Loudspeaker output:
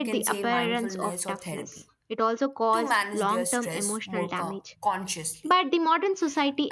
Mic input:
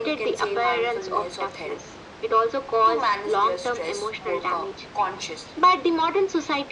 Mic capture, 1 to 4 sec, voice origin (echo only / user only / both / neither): echo only